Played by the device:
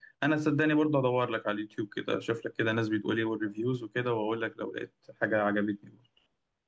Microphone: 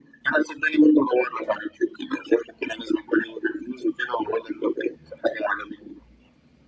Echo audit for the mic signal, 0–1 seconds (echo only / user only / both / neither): echo only